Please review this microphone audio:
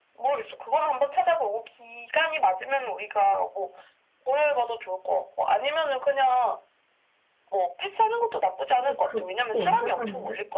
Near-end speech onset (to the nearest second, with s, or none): 9 s